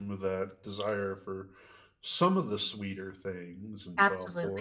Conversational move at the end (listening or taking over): taking over